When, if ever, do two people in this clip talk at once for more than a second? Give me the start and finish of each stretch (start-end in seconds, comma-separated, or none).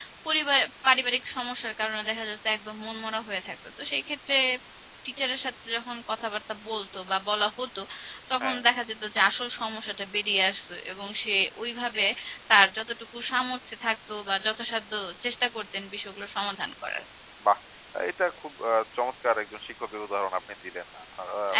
none